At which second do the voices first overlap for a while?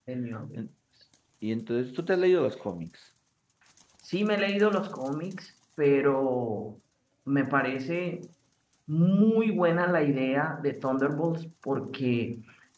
none

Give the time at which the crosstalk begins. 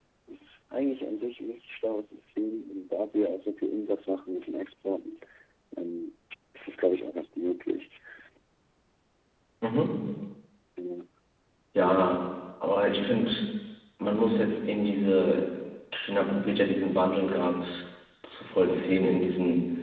none

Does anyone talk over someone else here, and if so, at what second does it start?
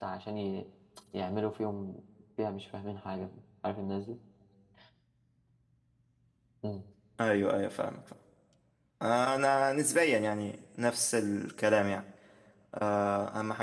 none

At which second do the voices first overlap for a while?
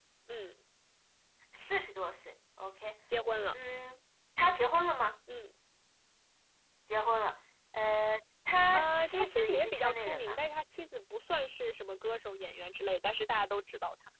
8.7 s

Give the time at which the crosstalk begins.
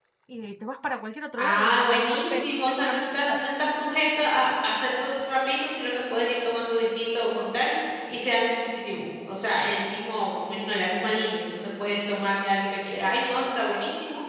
1.4 s

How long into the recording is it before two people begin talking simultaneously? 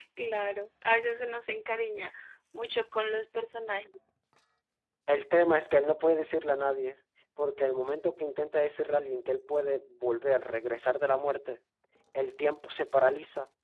none

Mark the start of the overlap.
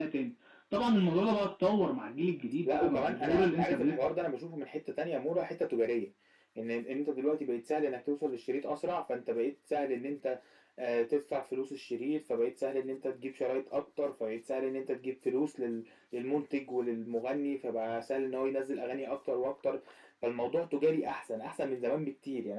2.6 s

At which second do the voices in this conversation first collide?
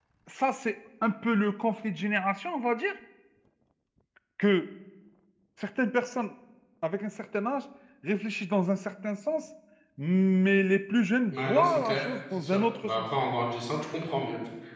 11.3 s

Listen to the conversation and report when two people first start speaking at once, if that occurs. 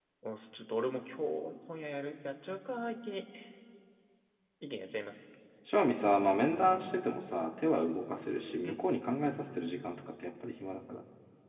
none

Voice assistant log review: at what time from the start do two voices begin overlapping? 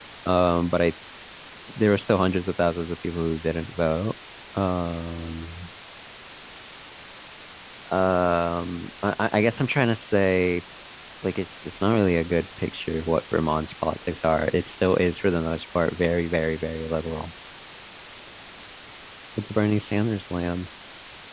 none

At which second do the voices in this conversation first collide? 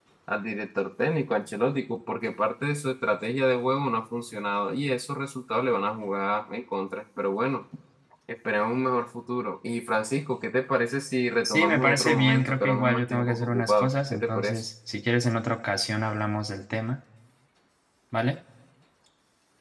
11.4 s

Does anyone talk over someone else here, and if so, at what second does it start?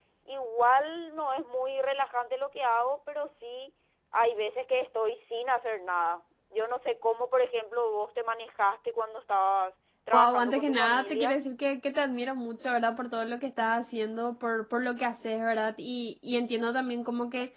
10.1 s

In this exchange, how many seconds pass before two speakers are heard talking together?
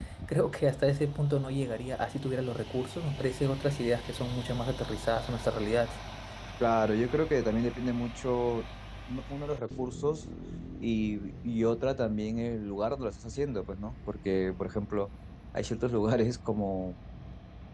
none

